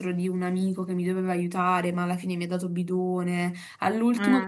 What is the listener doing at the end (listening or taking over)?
listening